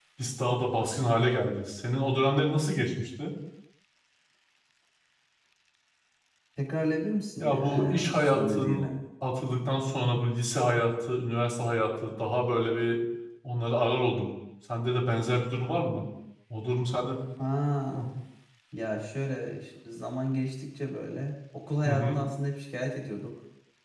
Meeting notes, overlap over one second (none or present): present